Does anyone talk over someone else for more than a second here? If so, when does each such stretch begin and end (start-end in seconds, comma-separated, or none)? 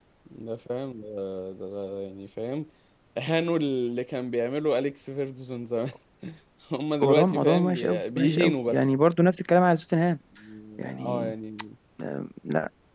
7.0-8.9